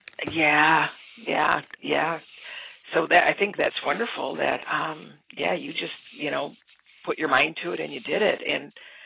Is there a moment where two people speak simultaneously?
No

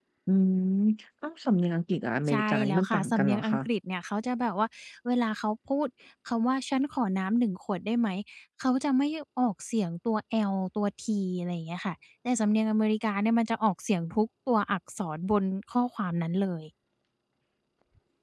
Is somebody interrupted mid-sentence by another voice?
Yes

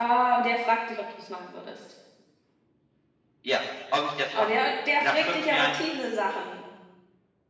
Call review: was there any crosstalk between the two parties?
Yes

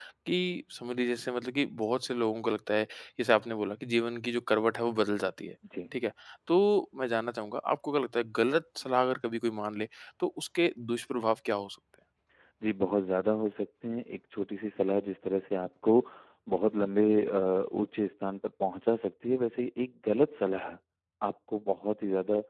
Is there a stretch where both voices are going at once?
No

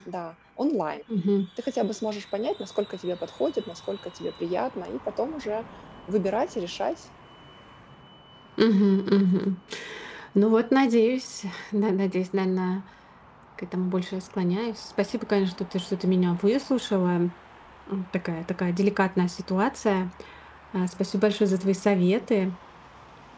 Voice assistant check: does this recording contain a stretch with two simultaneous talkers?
No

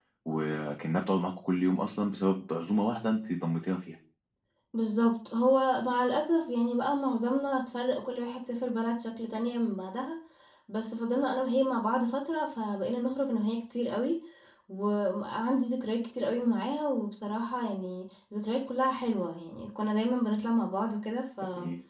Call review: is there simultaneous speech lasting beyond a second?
No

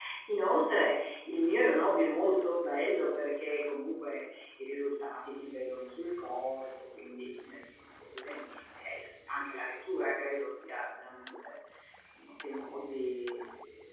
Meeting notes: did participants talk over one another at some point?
No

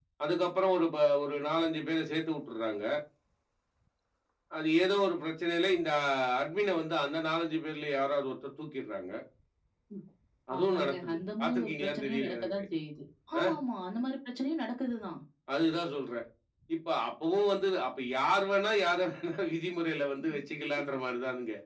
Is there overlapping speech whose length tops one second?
Yes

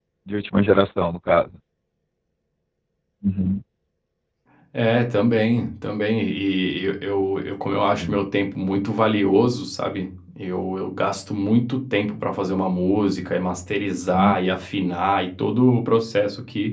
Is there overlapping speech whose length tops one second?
No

